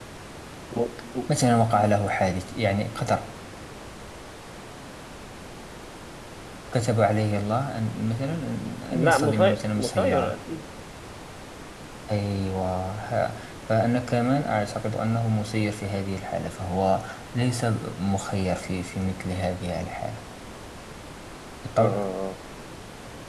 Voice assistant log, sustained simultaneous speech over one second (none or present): present